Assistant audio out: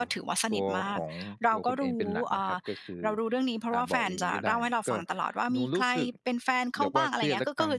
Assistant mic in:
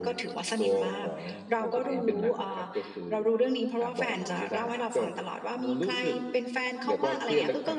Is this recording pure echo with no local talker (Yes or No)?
Yes